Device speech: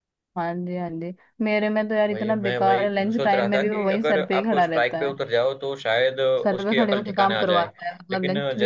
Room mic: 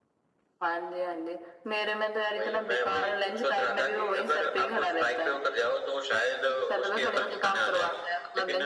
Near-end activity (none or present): none